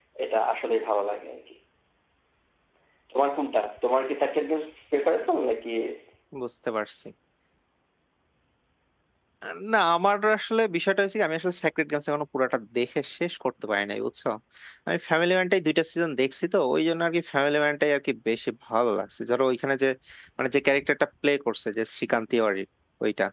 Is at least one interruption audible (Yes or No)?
No